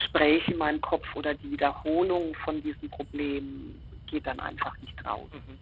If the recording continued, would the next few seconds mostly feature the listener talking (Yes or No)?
Yes